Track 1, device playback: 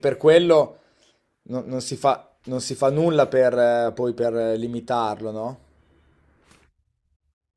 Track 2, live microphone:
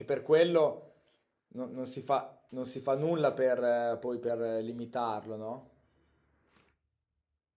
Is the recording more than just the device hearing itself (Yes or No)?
No